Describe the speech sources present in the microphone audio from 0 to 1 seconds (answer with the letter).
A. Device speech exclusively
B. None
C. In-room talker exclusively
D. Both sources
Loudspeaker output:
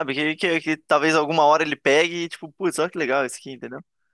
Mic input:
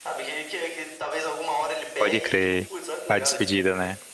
A